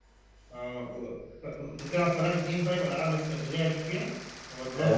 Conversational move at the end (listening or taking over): taking over